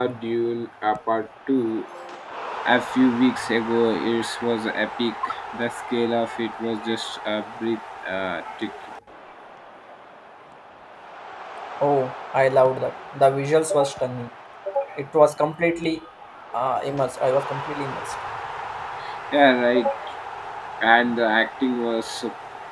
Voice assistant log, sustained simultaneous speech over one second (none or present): none